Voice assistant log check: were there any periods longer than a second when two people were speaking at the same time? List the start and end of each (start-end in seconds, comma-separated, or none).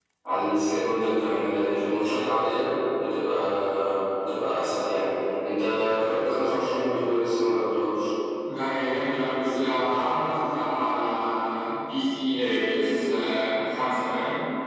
none